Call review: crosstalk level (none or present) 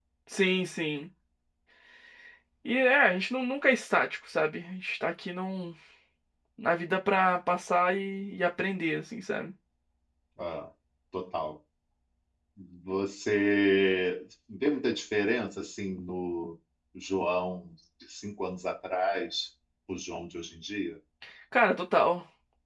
none